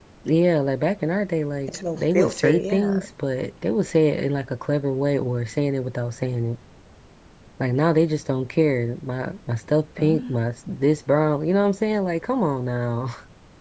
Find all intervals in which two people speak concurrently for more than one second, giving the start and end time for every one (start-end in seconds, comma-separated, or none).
1.7-3.0